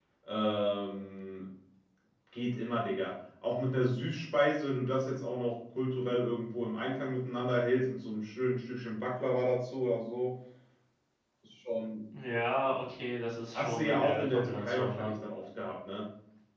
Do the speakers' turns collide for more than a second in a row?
Yes, from 13.5 s

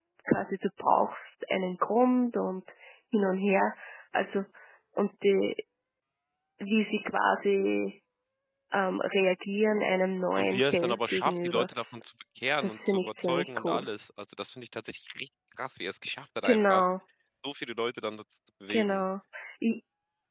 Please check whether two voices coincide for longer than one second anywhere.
Yes, from 10.4 s

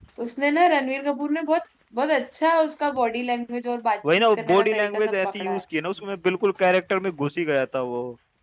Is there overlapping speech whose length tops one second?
Yes, from 4.0 s

